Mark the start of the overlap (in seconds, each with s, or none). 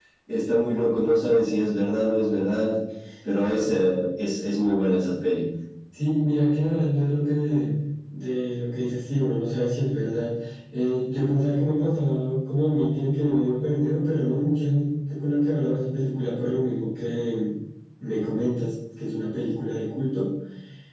none